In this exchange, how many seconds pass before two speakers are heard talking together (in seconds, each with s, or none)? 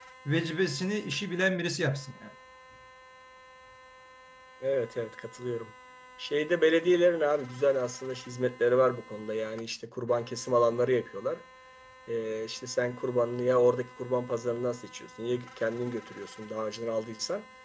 none